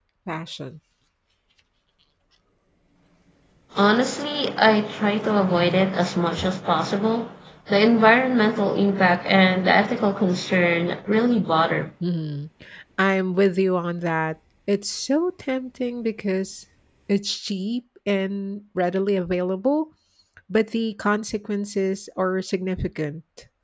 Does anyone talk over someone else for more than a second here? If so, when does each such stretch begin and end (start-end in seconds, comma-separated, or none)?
none